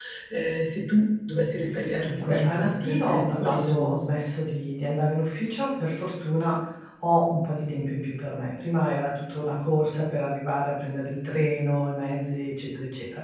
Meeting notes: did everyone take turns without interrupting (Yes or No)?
No